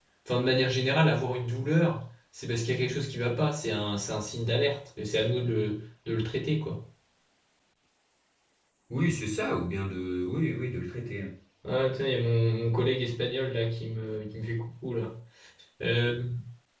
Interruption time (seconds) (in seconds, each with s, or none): none